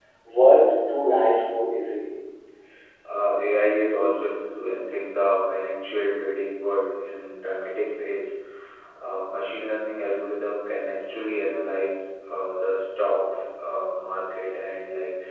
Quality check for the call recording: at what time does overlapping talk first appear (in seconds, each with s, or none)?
none